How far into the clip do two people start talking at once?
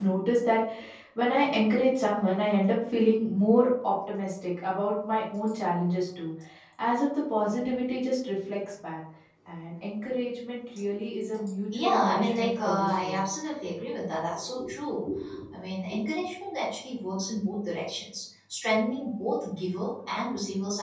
11.7 s

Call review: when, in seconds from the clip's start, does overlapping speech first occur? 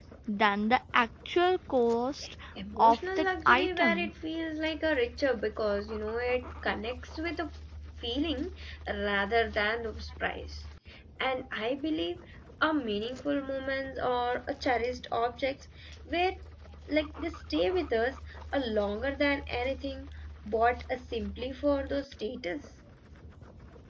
2.8 s

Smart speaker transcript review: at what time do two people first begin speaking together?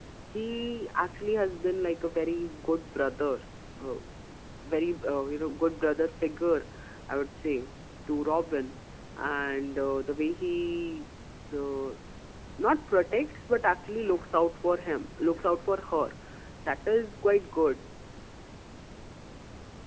none

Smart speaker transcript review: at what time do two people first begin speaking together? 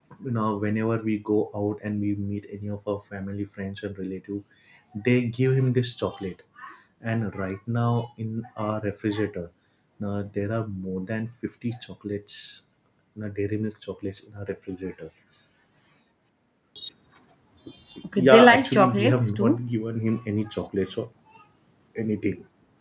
18.2 s

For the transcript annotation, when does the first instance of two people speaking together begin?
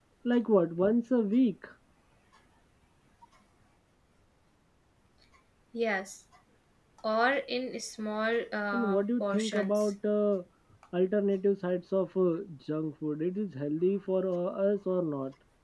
8.7 s

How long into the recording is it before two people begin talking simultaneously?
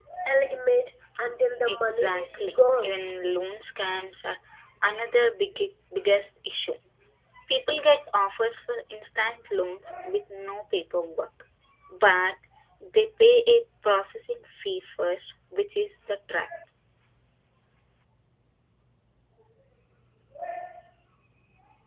1.6 s

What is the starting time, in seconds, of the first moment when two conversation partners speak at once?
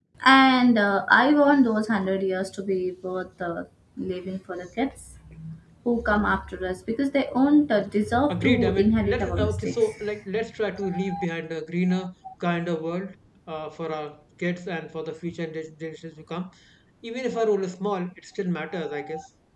8.3 s

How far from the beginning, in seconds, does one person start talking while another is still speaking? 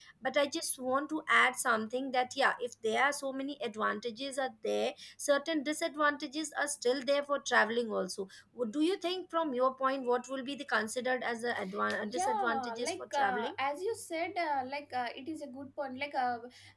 12.1 s

